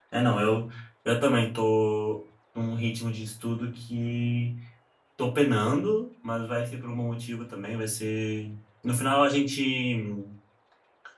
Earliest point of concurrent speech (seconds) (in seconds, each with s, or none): none